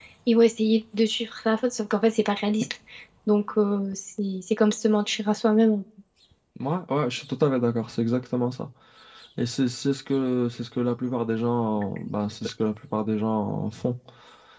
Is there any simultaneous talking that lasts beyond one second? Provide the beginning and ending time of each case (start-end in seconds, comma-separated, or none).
none